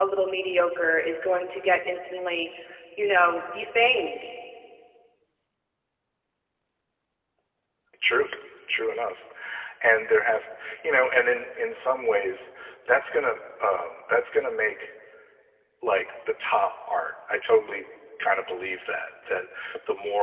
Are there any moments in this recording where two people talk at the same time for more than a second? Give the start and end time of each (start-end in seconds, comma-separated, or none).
none